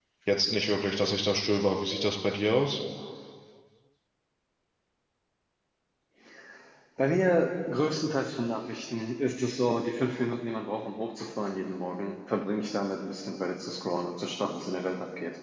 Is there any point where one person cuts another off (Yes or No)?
No